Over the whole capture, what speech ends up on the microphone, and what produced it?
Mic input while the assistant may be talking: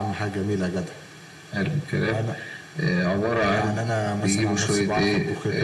echo only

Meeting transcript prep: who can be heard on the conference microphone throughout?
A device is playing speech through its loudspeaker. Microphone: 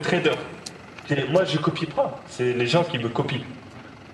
echo only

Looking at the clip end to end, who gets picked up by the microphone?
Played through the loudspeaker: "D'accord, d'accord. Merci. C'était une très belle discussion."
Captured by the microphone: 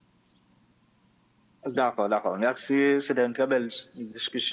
echo only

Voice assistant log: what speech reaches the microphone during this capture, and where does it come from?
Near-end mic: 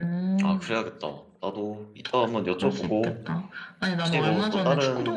both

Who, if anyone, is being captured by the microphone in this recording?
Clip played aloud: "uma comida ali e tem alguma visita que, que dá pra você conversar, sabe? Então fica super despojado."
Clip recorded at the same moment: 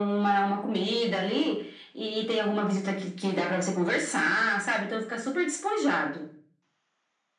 echo only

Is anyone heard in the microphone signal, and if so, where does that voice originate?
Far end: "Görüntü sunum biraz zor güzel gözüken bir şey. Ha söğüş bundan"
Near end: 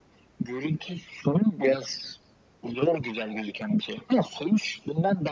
echo only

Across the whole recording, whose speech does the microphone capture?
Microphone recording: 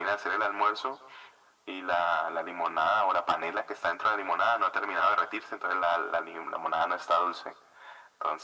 echo only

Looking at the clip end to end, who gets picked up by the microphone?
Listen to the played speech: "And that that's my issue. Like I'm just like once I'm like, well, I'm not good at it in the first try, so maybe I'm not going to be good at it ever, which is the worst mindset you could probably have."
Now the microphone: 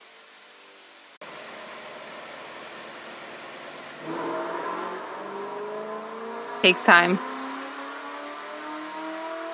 user only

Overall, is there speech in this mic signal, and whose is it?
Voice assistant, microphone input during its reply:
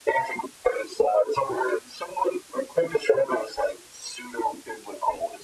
echo only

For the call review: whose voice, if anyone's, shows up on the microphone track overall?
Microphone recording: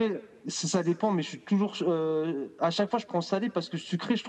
echo only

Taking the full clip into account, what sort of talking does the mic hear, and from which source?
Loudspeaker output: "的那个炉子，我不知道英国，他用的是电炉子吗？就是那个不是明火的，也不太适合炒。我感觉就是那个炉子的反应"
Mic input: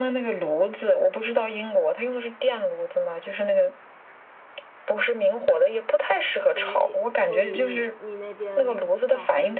both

